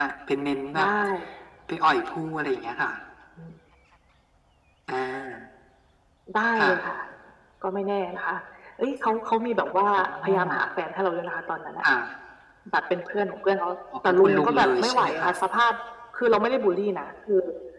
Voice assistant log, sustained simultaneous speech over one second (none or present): present